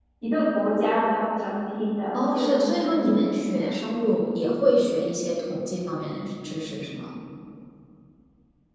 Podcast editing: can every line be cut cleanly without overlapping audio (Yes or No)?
No